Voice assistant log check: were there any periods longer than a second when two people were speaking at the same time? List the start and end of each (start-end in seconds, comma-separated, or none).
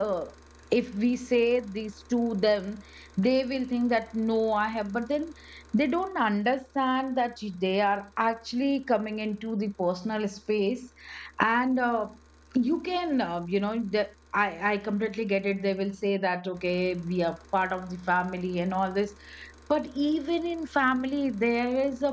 none